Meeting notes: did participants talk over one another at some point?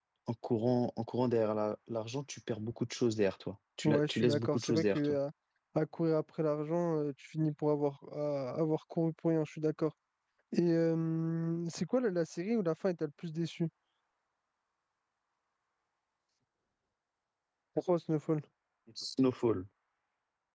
Yes, from 3.8 s

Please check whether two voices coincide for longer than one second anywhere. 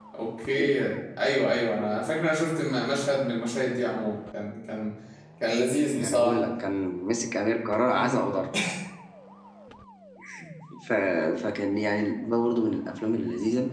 No

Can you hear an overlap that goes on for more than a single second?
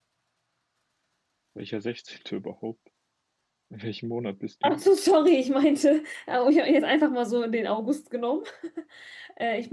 No

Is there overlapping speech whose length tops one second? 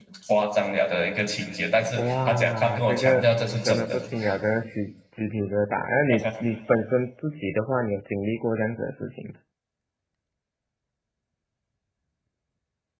Yes, from 2.0 s

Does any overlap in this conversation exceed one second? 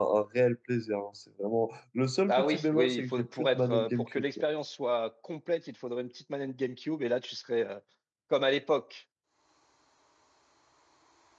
Yes, from 2.3 s

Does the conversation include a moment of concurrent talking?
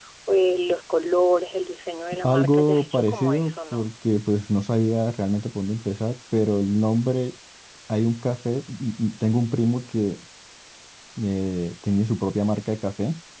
Yes, from 2.2 s

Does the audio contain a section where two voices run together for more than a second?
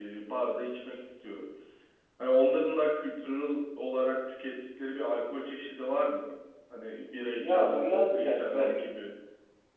Yes, from 7.4 s

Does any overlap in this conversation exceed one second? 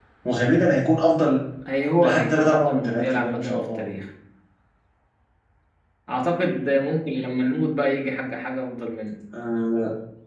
Yes, from 2.0 s

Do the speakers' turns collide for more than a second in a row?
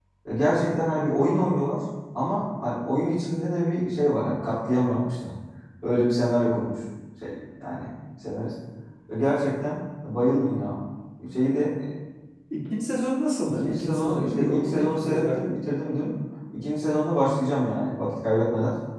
Yes, from 13.4 s

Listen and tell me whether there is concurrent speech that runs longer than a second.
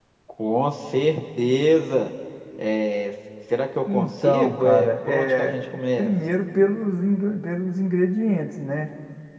Yes, from 3.9 s

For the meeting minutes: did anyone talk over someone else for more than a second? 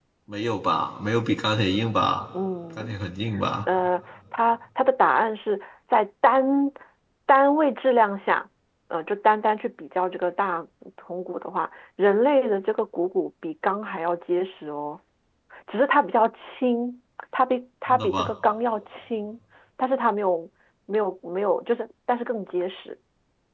No

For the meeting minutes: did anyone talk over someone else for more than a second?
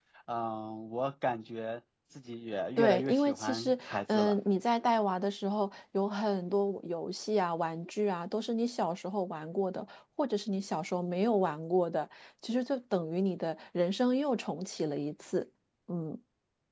Yes, from 2.8 s

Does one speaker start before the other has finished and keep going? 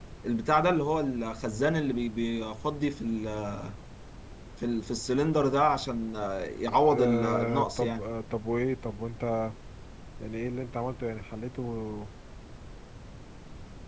Yes, from 6.7 s

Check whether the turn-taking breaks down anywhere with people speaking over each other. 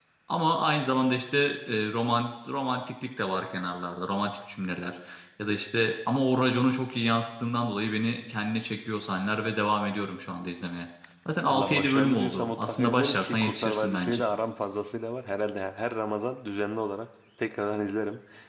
Yes, from 11.5 s

